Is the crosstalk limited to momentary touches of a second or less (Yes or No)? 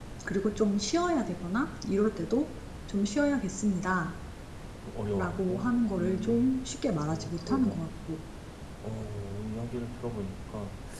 No